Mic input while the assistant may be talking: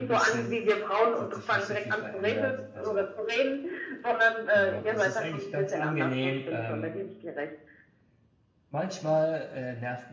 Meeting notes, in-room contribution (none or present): present